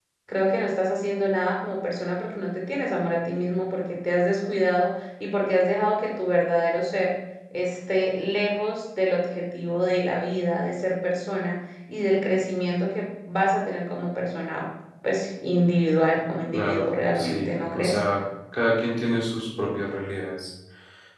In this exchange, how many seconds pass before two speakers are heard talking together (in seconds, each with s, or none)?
16.5 s